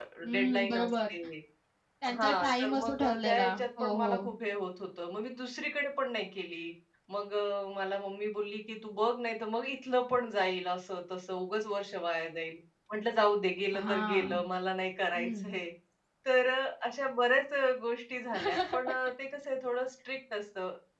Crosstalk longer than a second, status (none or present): present